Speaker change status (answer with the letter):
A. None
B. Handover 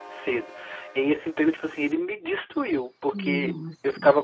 A